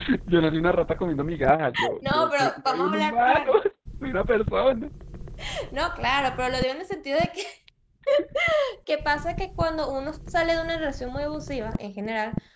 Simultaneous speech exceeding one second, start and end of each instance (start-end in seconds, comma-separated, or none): 2.0-3.5